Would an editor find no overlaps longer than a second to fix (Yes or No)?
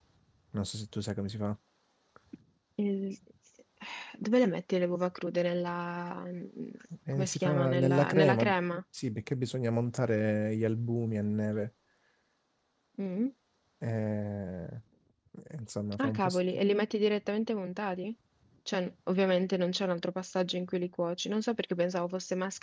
No